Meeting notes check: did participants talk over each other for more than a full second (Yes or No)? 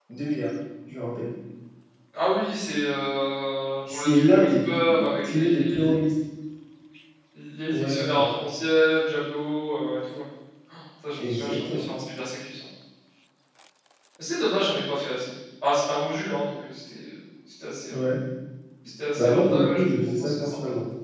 Yes